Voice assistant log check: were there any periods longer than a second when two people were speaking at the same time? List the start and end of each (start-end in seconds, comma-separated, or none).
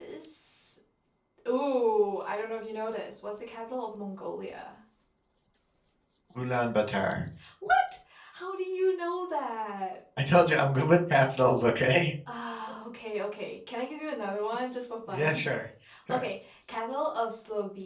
none